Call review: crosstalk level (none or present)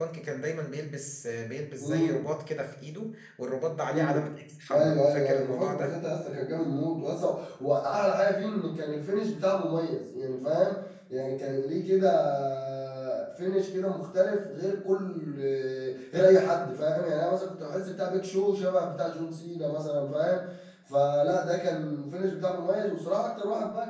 present